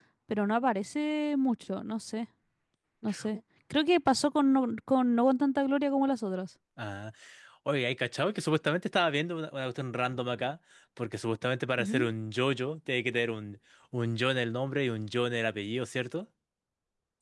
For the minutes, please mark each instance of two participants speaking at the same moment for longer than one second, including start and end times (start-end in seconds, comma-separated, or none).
none